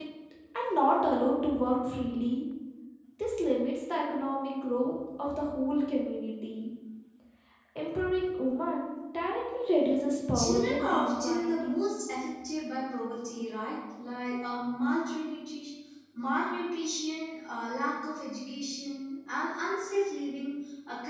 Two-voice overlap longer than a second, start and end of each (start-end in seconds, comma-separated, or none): 10.3-11.8